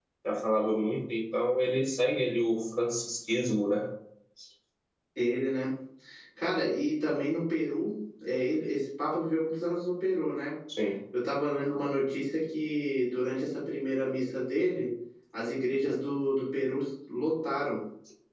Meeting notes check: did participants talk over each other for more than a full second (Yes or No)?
No